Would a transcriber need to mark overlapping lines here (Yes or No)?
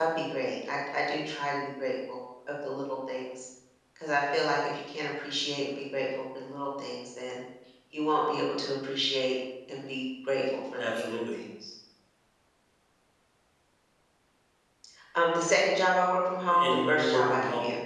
Yes